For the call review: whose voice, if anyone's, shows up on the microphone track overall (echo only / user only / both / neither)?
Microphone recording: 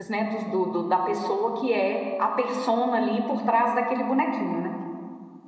user only